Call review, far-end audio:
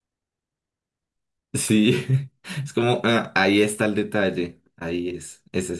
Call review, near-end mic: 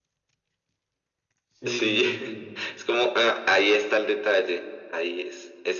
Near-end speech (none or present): present